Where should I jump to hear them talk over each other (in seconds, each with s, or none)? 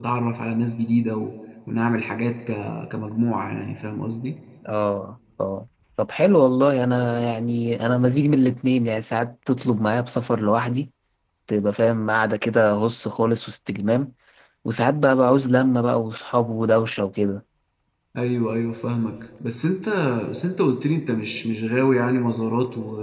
none